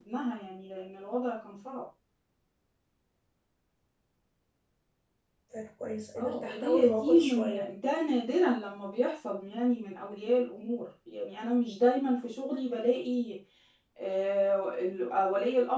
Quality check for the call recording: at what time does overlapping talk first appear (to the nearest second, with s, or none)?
6 s